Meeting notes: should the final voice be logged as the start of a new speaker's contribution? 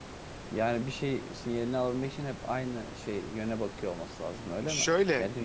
Yes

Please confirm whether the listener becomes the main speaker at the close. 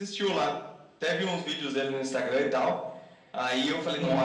No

